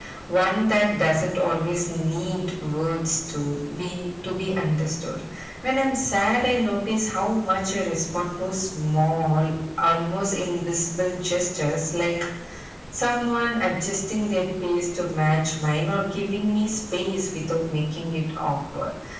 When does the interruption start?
none

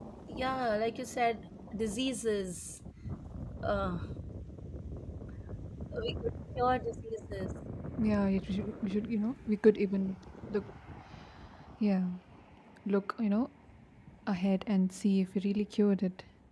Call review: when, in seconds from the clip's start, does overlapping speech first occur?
none

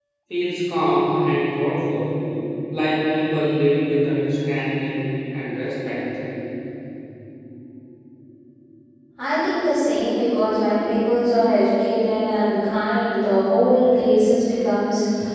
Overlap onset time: none

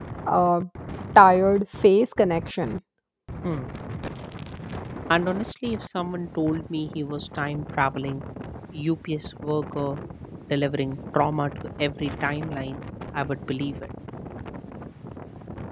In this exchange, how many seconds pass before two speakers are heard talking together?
none

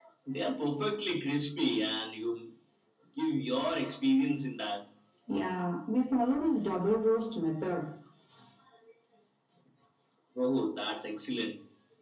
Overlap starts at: none

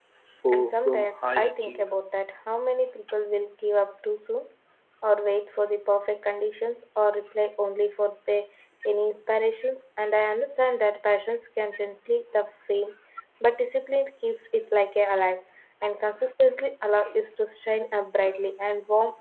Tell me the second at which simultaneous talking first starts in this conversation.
0.5 s

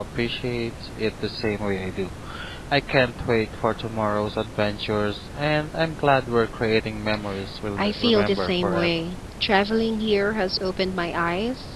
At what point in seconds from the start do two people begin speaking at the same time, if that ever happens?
7.8 s

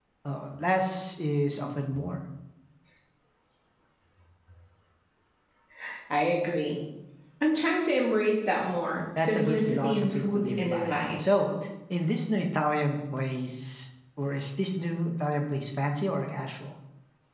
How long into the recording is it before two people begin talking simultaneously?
9.2 s

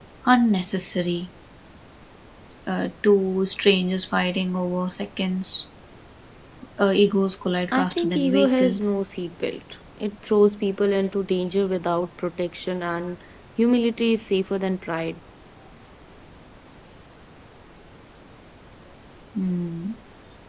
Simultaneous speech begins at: 7.7 s

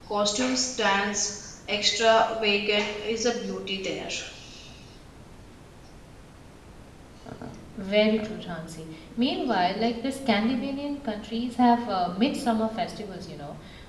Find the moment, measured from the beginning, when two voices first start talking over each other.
none

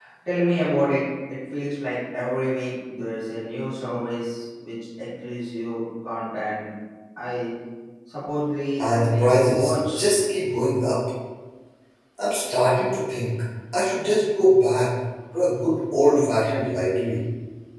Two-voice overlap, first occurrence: 8.8 s

